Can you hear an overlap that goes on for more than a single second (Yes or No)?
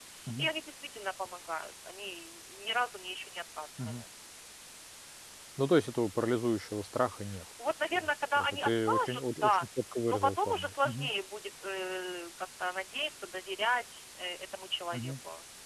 Yes